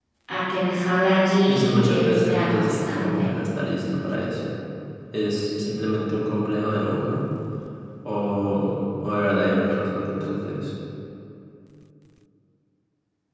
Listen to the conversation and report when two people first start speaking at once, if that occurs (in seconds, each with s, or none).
1.4 s